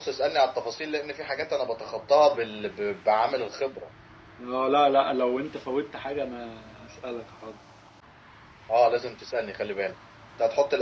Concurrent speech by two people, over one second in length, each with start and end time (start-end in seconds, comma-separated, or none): none